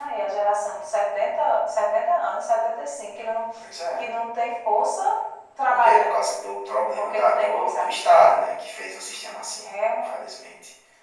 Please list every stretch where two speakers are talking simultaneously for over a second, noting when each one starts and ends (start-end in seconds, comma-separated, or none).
7.0-8.4